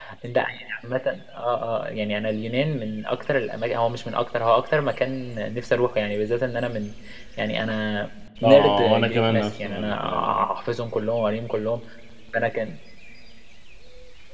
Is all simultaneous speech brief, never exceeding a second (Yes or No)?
No